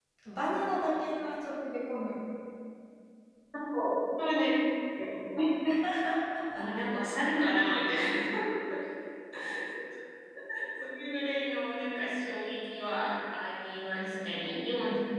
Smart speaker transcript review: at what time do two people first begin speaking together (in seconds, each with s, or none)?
none